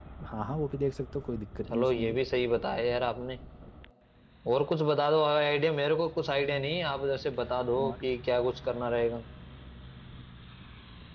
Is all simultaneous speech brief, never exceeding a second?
Yes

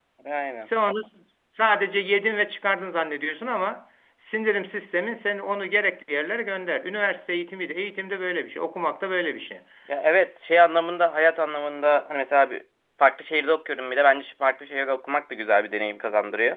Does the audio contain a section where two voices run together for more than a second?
No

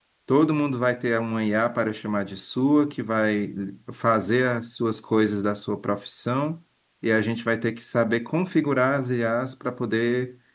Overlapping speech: No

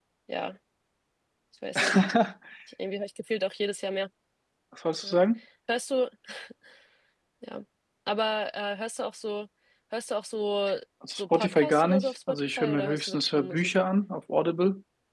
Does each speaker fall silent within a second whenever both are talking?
No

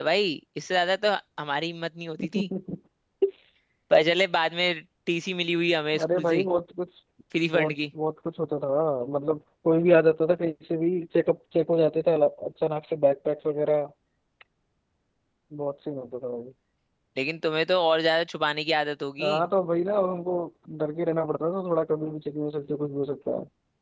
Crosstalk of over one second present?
No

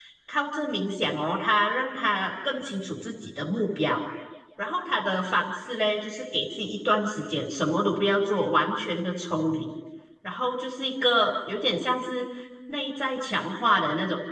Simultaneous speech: No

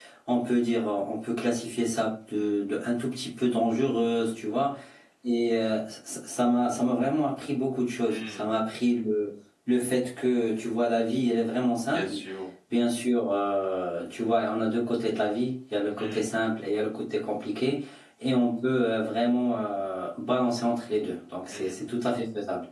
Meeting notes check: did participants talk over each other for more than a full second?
No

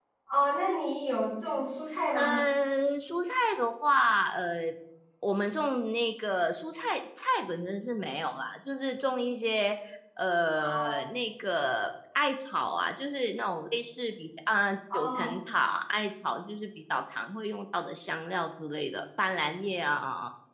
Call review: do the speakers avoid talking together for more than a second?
Yes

